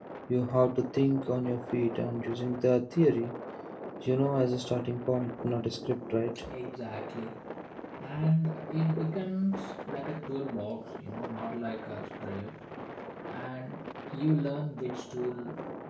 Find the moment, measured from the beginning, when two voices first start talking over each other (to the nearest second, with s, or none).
none